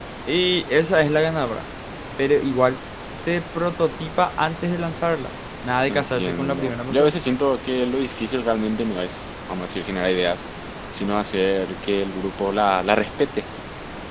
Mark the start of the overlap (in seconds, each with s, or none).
5.9 s